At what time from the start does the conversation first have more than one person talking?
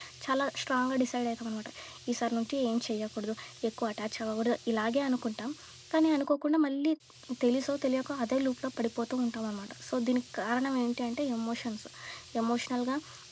none

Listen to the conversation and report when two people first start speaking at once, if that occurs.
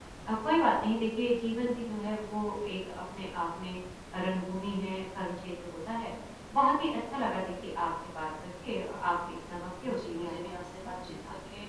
9.8 s

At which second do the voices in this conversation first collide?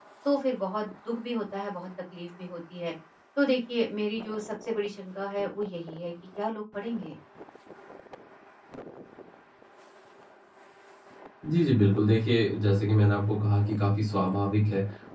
none

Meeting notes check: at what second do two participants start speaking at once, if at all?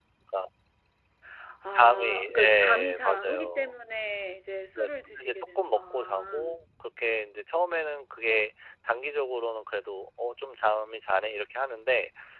1.8 s

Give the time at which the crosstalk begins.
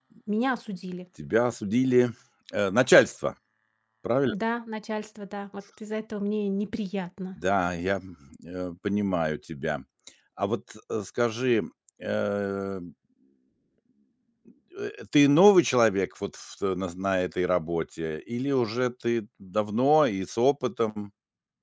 none

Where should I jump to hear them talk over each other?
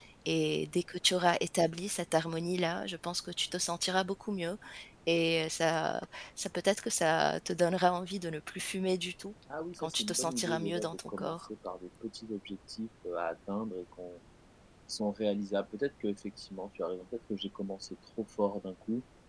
9.8 s

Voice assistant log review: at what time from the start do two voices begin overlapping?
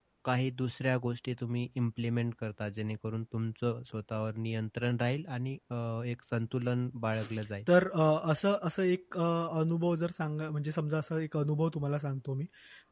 none

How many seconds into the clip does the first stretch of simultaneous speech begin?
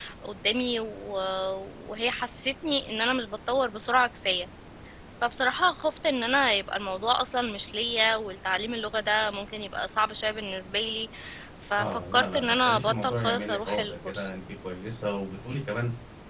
11.8 s

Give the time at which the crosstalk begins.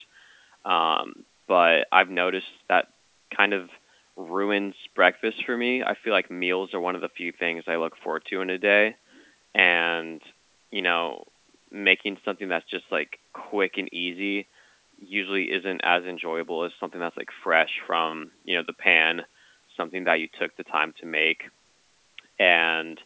none

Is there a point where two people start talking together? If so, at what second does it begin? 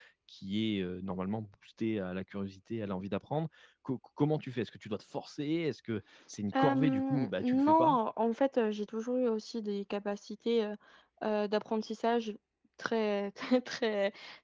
6.5 s

